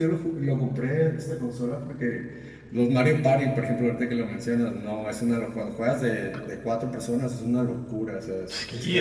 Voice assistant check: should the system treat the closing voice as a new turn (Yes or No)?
Yes